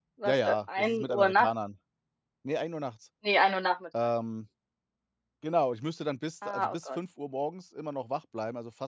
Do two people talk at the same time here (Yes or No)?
Yes